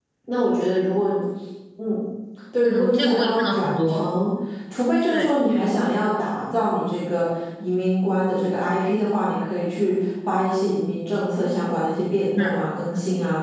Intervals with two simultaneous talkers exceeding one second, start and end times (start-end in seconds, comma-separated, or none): 2.6-4.0